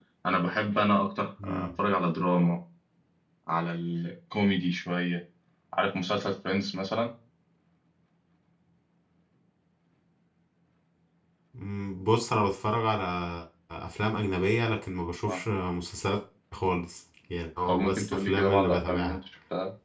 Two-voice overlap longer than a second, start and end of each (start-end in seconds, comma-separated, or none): 17.7-19.2